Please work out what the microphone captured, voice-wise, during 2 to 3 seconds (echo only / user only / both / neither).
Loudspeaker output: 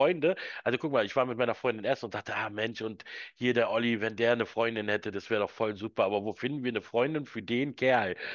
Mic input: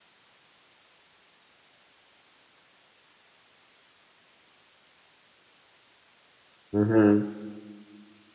neither